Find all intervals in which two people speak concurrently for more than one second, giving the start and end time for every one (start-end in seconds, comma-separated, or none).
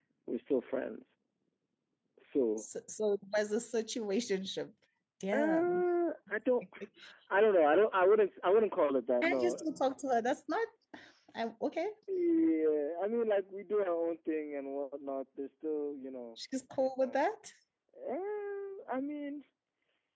none